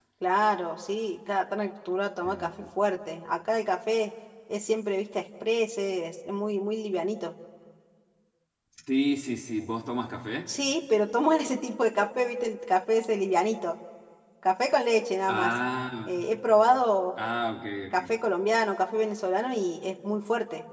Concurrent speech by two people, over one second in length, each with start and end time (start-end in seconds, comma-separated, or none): none